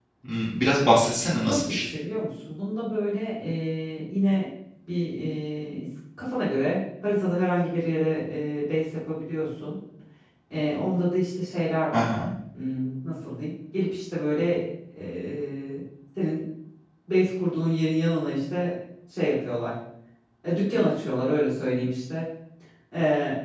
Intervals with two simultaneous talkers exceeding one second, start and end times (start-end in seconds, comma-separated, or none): none